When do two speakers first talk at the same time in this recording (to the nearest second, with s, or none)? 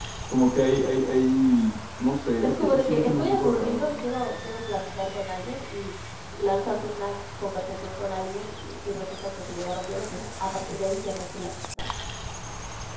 2 s